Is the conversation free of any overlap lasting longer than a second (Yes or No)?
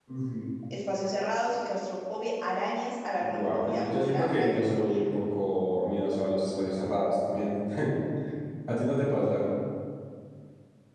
No